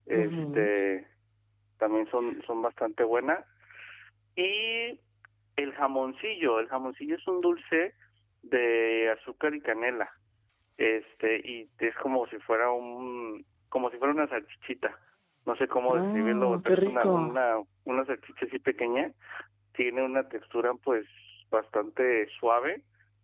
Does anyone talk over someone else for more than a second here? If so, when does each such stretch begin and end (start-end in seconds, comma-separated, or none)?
15.9-17.2